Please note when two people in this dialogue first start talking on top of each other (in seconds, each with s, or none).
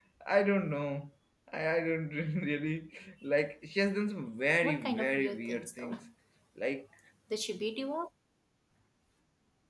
4.6 s